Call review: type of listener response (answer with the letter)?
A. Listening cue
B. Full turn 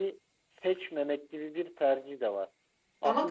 A